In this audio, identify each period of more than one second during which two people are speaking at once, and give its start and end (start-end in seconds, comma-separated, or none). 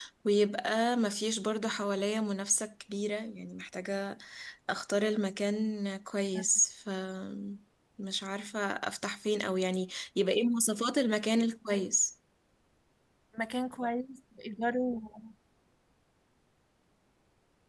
none